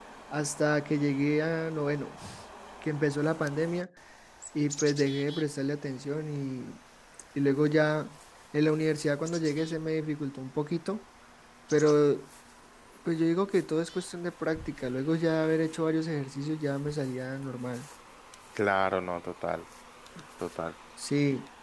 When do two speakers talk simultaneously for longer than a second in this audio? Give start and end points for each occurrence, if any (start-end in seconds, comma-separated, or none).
none